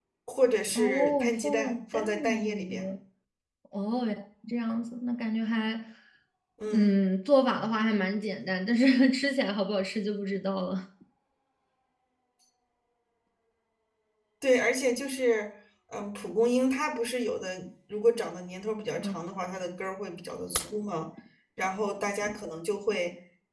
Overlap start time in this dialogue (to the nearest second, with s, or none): 1 s